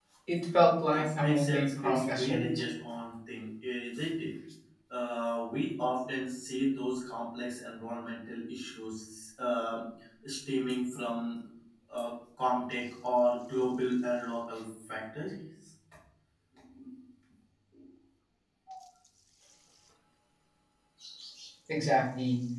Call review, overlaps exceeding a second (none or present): present